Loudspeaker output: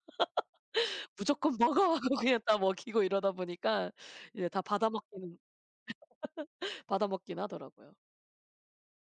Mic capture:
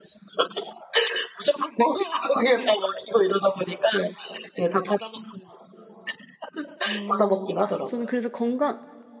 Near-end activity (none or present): present